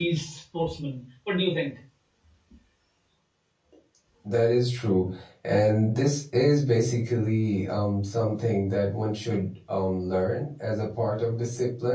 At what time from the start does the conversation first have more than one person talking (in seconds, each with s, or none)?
none